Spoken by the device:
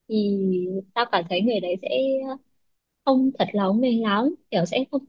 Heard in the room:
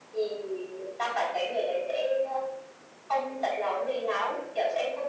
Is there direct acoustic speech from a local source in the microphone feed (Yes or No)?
No